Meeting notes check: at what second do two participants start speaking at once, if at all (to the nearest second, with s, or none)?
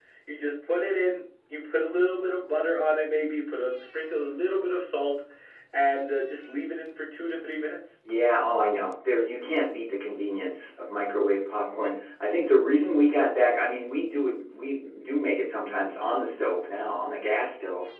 none